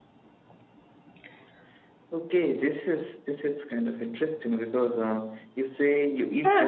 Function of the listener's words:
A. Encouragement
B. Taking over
B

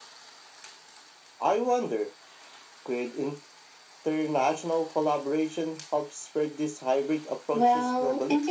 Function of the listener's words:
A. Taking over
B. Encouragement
A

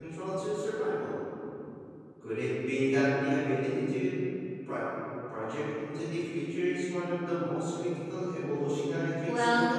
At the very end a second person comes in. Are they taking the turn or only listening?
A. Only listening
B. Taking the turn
B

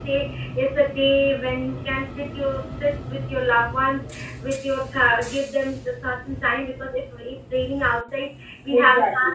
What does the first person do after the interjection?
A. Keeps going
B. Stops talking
A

